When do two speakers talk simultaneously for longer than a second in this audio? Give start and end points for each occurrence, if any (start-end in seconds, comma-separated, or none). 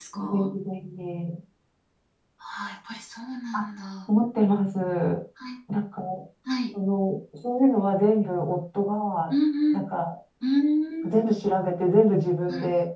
none